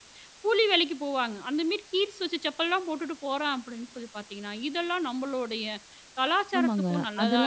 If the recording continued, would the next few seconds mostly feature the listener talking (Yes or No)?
Yes